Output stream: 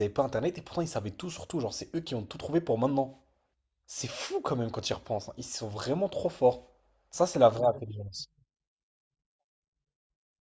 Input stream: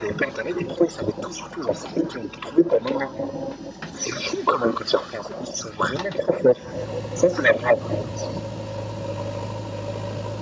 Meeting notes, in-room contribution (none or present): none